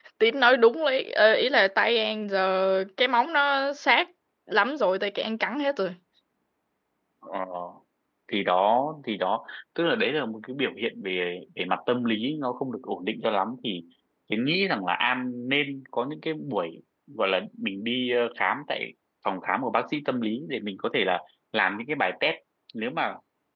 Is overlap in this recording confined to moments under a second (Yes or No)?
Yes